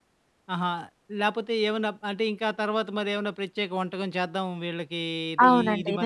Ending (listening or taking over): taking over